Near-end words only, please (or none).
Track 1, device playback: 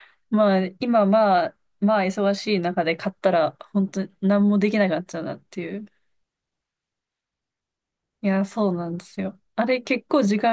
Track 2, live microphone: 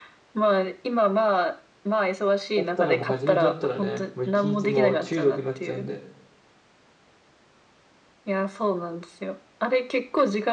だったらもう初めてだったらね、もう一日もう中毒になっちゃうんで。